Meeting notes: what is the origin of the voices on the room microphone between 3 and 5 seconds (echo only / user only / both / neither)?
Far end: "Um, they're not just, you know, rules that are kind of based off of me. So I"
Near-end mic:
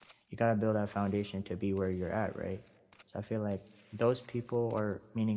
user only